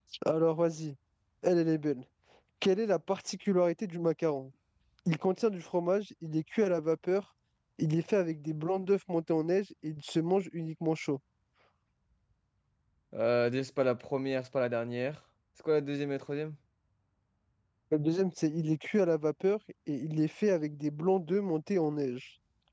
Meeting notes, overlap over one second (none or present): none